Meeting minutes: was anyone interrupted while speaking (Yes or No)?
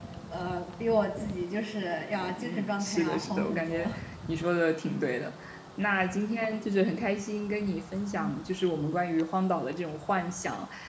Yes